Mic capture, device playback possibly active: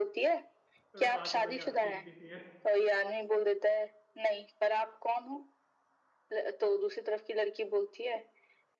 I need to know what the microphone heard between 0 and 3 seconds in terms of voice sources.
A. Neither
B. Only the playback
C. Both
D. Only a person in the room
C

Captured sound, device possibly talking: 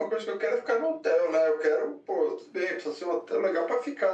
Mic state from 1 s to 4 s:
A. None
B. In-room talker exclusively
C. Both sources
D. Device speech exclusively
D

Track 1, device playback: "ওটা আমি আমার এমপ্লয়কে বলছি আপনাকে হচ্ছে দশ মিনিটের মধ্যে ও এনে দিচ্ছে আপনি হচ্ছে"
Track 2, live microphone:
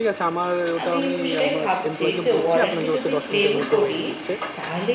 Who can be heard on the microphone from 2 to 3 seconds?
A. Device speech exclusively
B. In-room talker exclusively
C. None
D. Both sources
D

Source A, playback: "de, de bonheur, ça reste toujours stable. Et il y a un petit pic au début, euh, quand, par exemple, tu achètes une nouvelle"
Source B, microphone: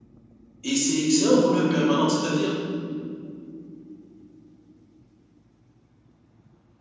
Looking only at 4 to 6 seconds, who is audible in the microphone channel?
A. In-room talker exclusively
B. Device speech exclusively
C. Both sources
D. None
D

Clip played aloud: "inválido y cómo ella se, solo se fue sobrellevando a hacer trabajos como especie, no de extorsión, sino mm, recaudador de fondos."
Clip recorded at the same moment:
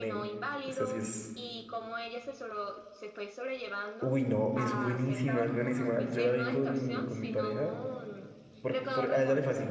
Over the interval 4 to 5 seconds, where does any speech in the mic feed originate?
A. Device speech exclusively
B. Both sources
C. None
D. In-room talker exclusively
B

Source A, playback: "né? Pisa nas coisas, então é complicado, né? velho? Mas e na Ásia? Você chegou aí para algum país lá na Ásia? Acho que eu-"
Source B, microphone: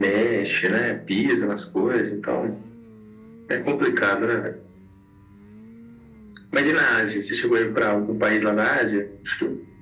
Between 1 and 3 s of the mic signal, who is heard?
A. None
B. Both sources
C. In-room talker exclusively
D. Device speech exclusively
D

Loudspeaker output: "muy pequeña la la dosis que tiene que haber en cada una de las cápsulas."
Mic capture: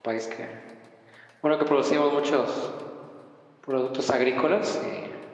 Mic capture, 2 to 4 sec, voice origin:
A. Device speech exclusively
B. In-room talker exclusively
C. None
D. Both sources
B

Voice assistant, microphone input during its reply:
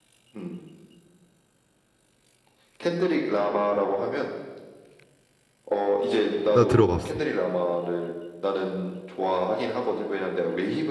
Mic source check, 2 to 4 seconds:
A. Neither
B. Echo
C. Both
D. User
B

